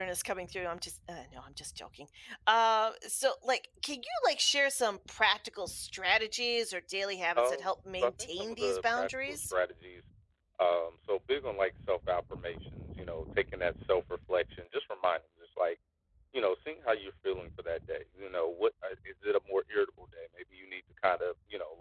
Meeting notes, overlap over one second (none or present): present